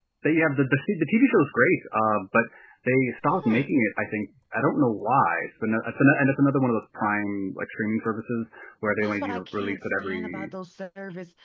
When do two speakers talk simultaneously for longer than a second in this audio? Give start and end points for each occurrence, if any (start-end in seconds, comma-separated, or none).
9.0-10.5